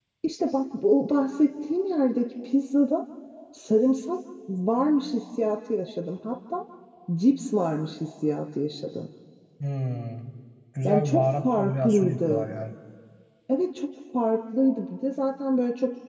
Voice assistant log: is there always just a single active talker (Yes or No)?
No